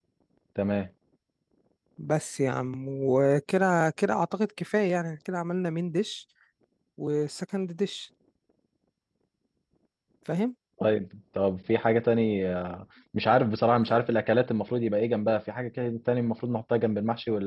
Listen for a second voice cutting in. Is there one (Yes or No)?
No